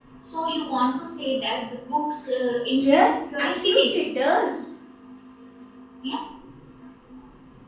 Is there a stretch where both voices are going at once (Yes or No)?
Yes